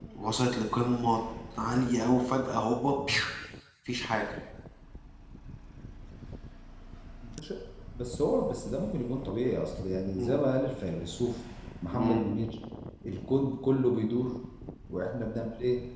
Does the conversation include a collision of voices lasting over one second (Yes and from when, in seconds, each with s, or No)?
No